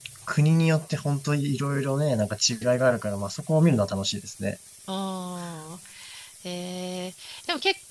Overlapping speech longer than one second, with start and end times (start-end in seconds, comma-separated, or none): none